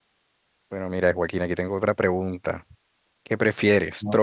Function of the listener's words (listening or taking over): listening